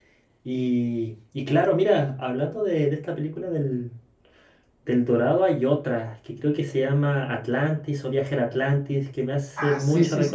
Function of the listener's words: taking over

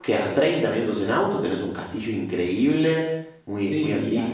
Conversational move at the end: taking over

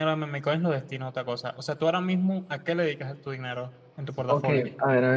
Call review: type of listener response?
taking over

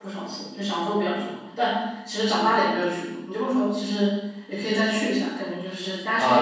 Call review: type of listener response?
taking over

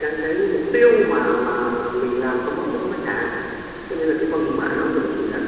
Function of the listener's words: listening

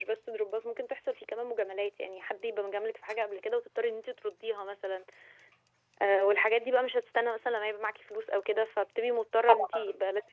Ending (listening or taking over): taking over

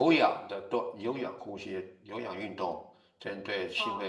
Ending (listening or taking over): taking over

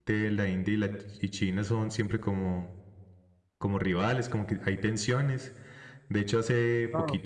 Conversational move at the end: listening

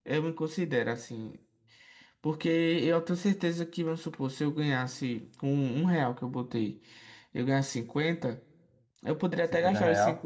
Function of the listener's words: listening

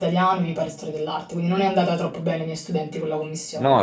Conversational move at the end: taking over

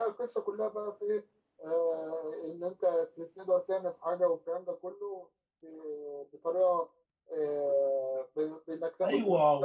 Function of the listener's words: taking over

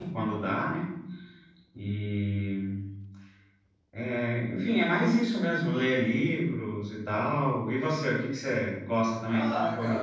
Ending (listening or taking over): taking over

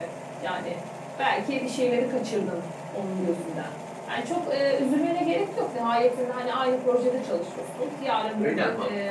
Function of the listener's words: listening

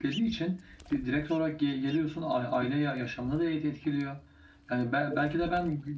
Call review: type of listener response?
listening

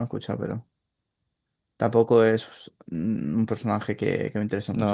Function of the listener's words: taking over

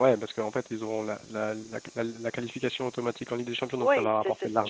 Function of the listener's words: taking over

